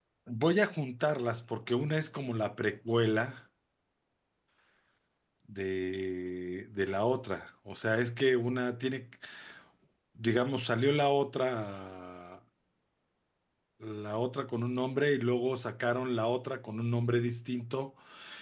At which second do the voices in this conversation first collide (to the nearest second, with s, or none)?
none